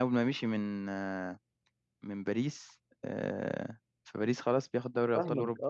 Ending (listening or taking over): taking over